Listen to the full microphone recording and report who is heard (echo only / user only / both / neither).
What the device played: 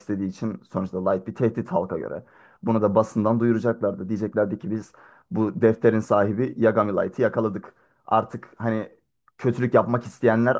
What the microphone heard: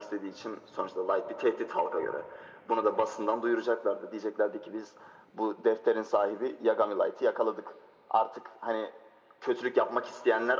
echo only